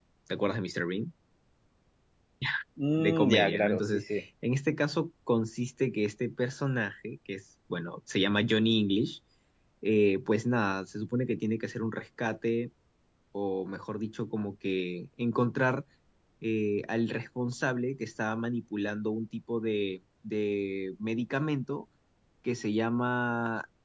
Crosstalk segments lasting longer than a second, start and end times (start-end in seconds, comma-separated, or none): 3.0-4.2